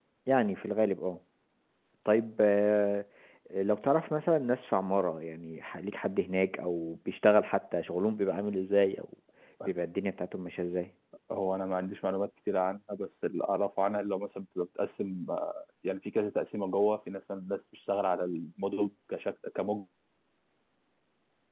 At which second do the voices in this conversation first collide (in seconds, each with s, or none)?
none